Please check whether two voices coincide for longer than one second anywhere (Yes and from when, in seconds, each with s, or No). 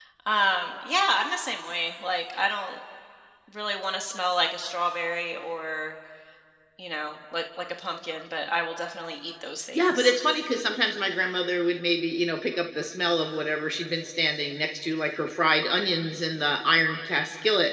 No